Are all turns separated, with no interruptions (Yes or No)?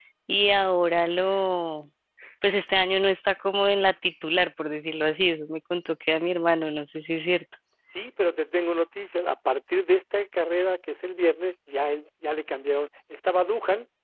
Yes